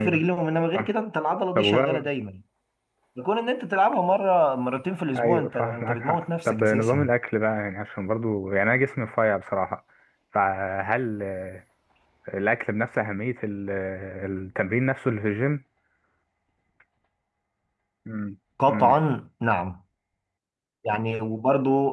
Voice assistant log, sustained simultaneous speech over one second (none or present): present